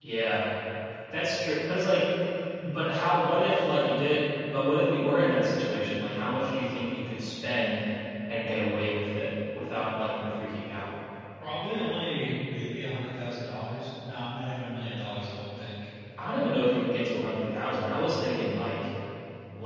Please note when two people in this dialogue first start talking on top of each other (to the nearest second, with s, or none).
none